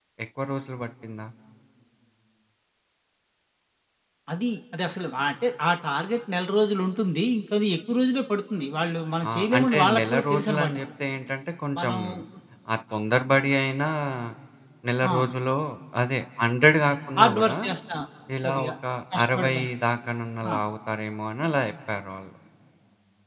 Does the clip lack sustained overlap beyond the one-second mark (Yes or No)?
No